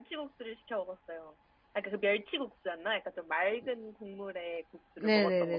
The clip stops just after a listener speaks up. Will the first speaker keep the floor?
No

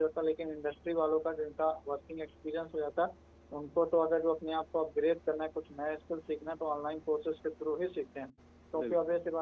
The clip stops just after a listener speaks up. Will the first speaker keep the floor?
Yes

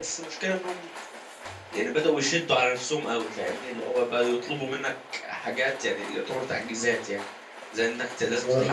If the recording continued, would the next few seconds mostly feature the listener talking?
No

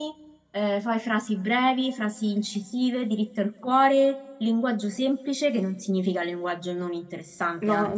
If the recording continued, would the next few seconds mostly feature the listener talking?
Yes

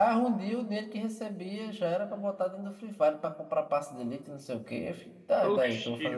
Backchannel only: No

